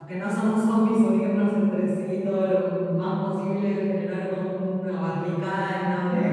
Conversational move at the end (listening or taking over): listening